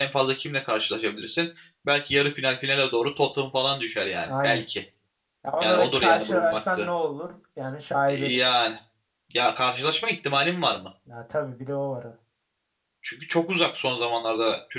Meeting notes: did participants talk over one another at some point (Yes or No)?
Yes